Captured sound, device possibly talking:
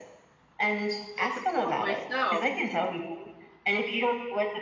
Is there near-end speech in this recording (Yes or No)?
Yes